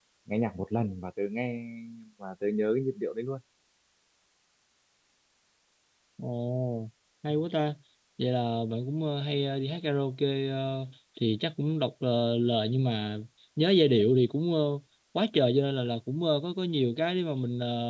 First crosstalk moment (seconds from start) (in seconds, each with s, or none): none